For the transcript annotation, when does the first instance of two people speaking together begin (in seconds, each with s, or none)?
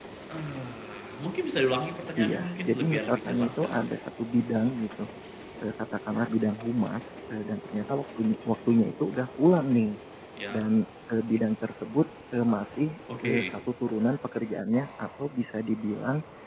2.2 s